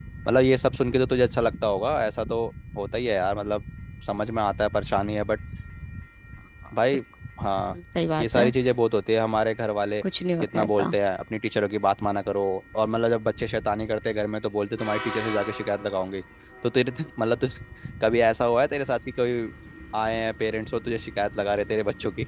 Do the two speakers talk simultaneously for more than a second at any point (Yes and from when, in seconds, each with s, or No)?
No